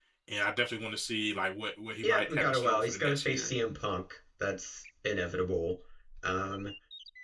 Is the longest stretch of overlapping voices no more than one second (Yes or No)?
No